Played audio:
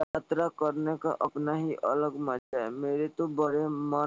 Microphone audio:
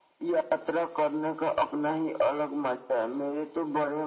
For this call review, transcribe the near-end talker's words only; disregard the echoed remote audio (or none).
none